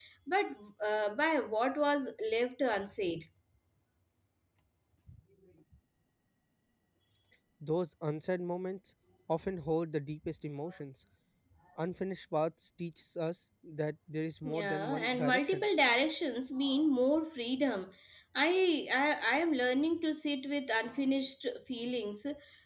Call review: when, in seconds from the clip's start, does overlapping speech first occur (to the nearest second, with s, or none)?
14 s